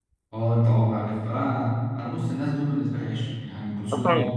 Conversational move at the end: taking over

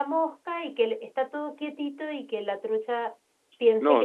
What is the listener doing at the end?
taking over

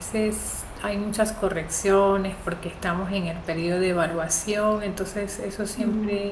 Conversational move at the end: listening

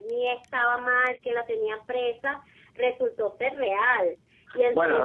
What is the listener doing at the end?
taking over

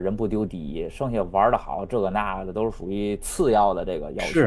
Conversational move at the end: taking over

